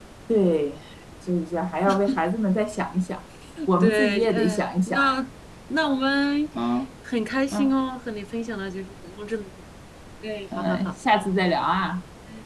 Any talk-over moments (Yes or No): Yes